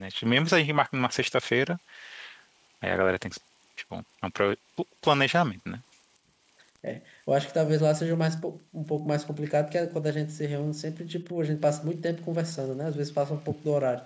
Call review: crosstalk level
none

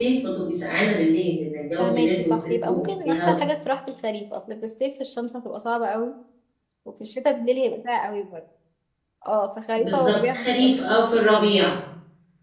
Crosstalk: present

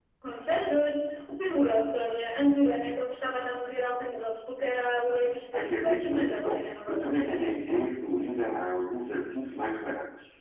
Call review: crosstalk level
present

